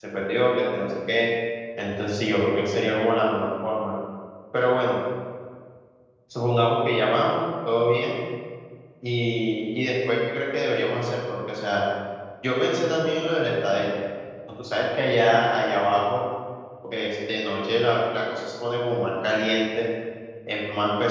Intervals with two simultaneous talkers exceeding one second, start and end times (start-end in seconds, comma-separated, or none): none